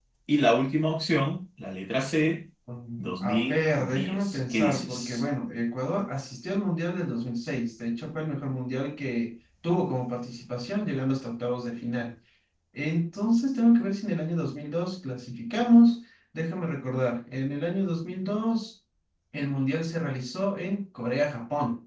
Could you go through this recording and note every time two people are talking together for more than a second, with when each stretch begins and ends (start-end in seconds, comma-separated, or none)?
3.0-5.2